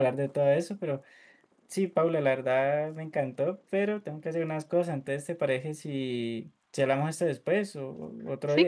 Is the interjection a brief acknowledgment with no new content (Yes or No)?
No